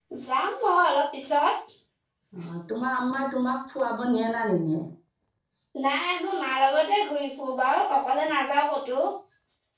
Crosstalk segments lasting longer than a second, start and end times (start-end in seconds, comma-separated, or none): none